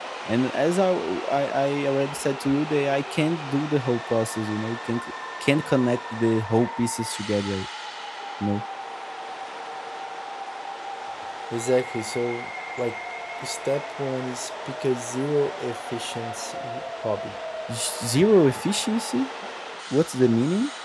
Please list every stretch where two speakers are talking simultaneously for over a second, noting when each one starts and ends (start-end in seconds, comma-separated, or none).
none